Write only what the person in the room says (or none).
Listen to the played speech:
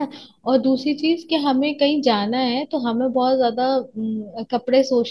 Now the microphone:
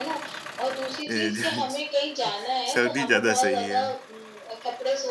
ए, ज- सर्दी ज्यादा सही है